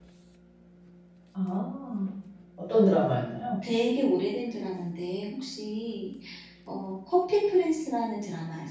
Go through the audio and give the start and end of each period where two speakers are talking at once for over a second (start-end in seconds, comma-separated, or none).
none